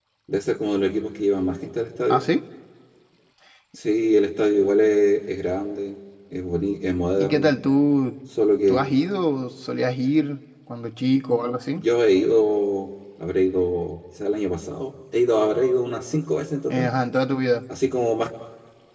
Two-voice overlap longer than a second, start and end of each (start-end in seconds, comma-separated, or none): none